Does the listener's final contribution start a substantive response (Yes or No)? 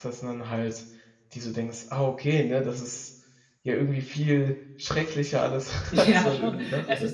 Yes